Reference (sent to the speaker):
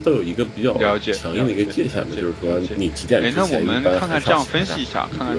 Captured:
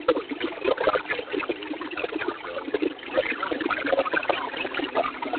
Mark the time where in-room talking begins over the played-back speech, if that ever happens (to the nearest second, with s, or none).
none